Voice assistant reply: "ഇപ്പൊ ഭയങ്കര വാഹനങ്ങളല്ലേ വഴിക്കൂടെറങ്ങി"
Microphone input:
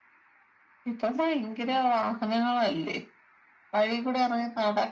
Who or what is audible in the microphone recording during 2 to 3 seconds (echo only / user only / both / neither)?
echo only